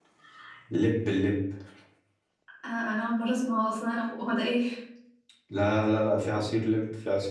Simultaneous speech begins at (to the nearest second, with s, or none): none